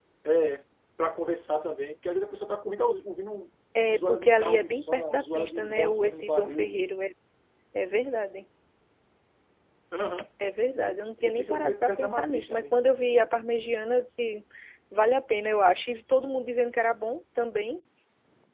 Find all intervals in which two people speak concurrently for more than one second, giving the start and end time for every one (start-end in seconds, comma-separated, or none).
3.9-6.8, 10.8-12.8